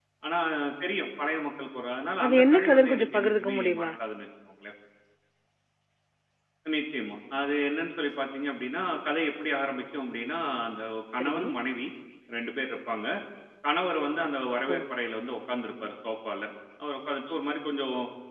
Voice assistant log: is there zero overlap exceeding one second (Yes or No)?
No